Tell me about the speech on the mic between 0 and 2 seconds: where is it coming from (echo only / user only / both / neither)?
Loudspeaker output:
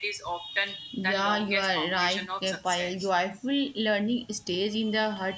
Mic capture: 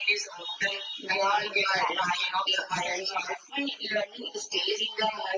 echo only